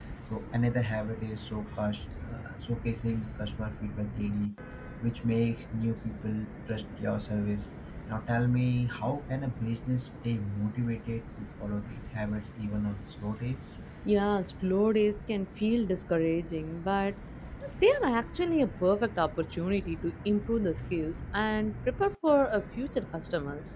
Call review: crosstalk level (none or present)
none